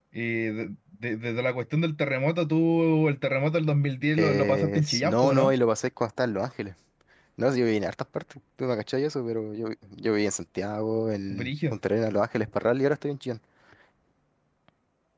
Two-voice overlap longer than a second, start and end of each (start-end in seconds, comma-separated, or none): 4.1-5.5